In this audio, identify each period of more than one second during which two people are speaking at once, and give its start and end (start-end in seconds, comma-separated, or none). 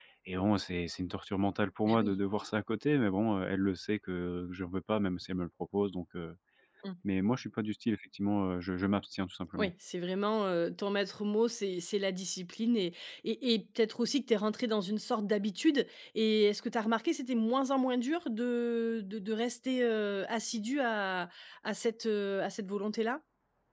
none